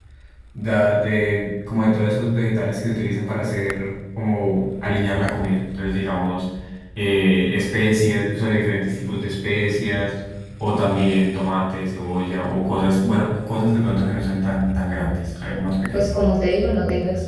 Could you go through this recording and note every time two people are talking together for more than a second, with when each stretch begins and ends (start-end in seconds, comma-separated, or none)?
none